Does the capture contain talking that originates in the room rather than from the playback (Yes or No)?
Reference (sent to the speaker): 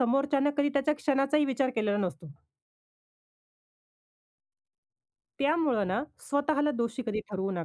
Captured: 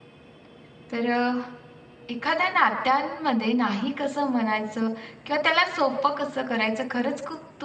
Yes